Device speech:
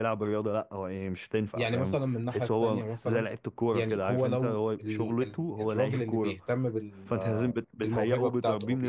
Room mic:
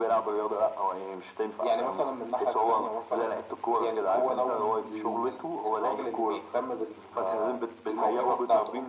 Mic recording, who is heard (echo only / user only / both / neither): both